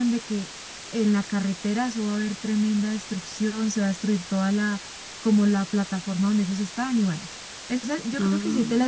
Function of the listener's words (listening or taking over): listening